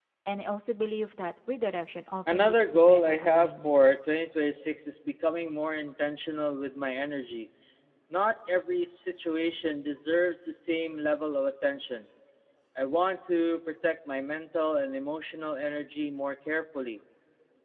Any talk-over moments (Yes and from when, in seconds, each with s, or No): Yes, from 2.3 s